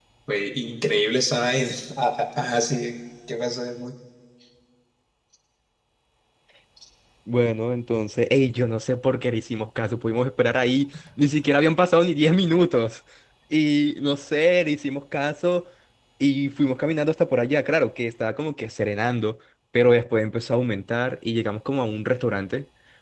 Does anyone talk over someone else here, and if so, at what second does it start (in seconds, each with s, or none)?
none